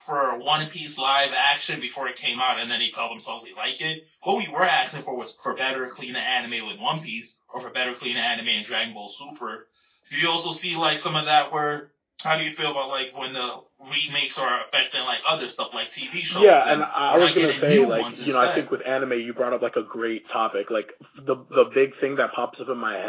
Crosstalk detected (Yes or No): Yes